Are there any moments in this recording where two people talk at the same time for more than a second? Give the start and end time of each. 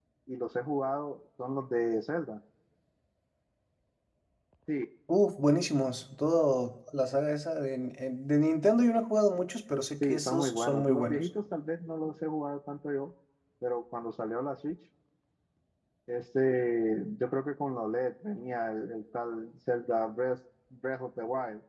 10.0-11.3

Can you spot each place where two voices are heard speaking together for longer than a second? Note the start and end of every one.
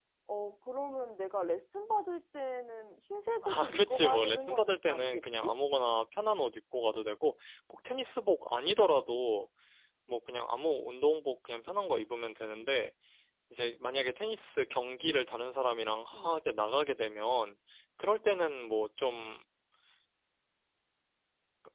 3.4-5.5

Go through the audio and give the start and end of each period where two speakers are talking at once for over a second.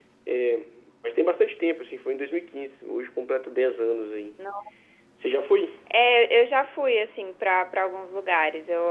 none

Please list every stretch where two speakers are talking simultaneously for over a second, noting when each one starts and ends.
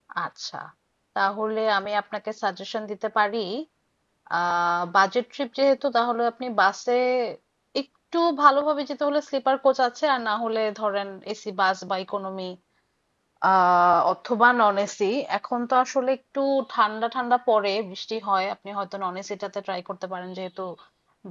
none

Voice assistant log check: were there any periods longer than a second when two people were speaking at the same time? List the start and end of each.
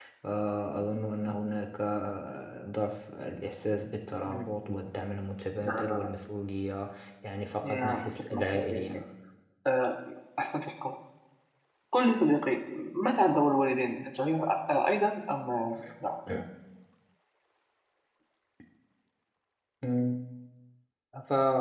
7.6-9.0

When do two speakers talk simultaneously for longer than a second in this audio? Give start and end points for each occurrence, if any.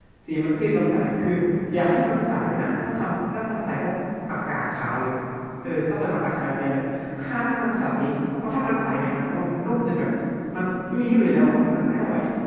none

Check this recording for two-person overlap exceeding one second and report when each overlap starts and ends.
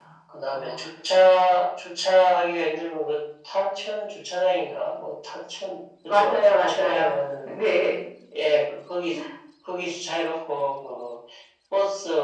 6.1-7.5

